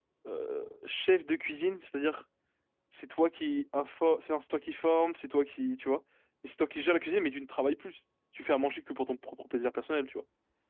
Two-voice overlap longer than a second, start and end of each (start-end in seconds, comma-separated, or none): none